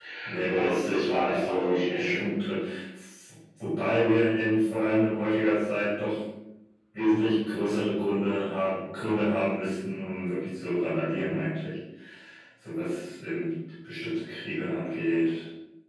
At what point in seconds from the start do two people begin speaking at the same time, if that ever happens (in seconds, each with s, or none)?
0.5 s